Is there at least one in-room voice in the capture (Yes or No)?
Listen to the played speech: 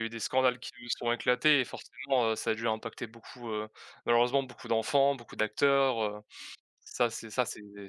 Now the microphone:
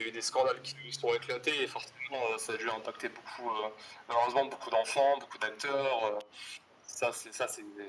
No